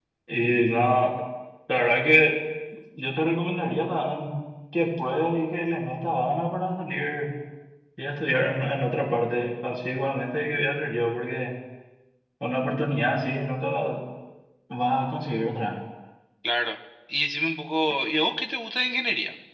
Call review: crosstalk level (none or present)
none